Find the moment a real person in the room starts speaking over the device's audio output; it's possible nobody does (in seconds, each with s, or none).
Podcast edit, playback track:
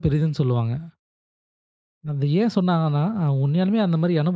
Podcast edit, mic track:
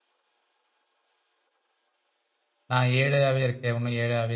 2.7 s